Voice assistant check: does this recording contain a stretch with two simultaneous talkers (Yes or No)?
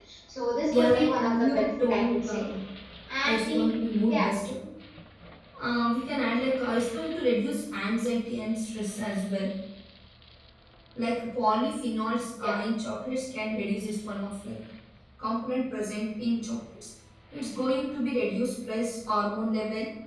Yes